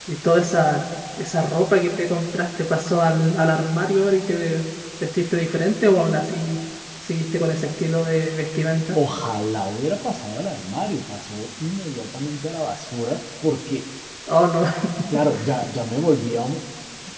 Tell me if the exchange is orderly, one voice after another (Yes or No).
Yes